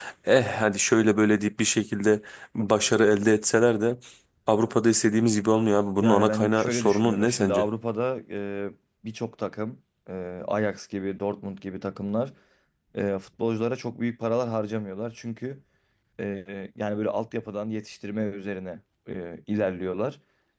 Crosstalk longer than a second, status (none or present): present